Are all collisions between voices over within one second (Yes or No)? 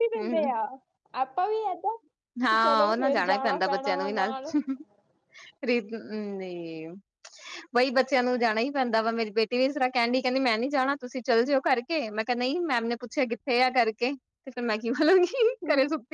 No